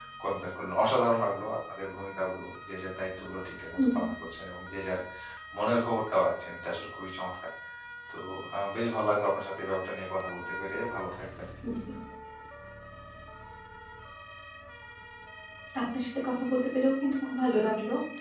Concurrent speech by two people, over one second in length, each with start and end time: none

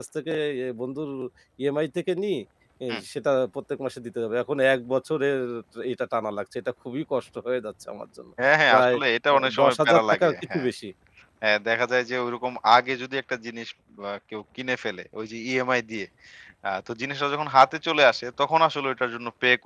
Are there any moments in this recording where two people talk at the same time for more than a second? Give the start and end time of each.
9.3-10.7

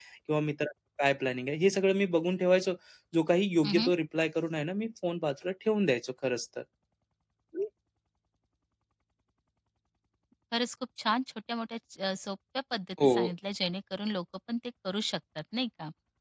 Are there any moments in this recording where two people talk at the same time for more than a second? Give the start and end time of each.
none

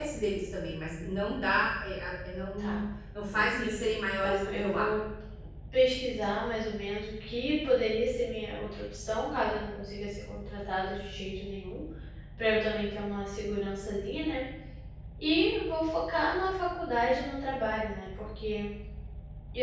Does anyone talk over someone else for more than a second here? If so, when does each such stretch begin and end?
3.3-5.0

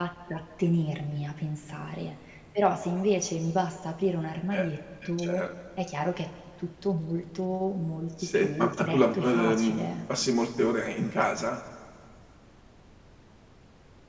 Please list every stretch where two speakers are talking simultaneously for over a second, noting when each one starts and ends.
8.3-9.8

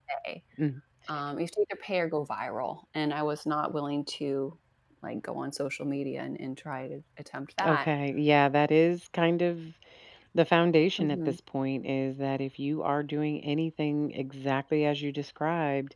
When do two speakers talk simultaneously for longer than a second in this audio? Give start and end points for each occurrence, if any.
none

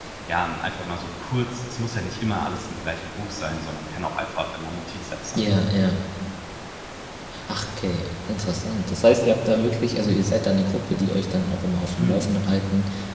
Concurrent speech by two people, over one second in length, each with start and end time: none

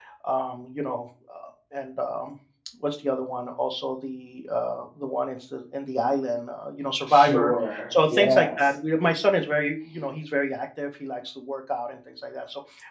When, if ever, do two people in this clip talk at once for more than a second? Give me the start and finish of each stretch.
7.1-8.7

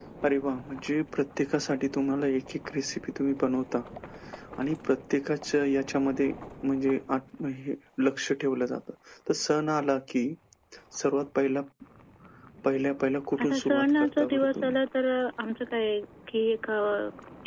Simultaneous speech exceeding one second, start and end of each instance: 13.4-14.8

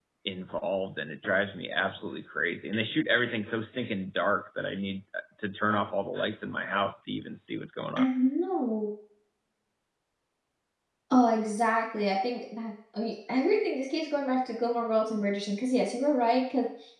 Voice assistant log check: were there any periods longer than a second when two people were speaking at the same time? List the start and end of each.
none

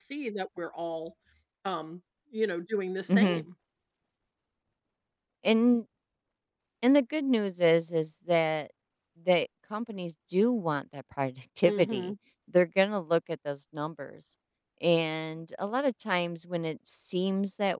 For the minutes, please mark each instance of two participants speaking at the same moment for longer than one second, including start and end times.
none

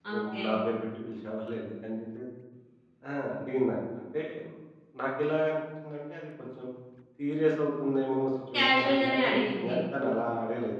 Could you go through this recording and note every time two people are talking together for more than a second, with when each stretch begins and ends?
8.5-9.7

